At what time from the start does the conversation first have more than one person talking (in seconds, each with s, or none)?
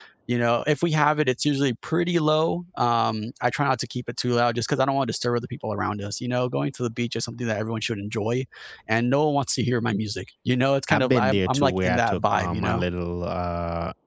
10.9 s